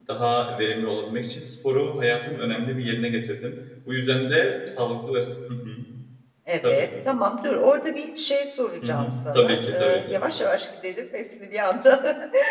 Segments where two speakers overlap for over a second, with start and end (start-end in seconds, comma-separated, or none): 8.8-10.1